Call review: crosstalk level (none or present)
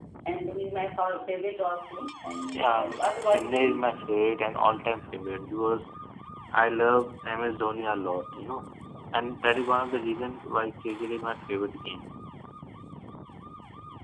present